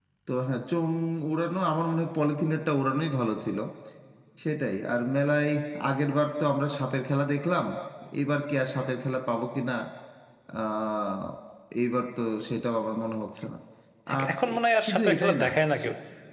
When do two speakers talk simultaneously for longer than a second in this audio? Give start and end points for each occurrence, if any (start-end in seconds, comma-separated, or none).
14.1-15.5